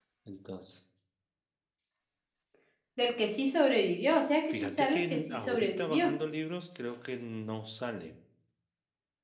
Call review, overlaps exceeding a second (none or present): present